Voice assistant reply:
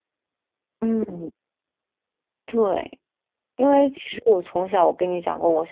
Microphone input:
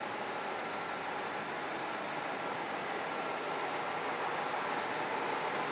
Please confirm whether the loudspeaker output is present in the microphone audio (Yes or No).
No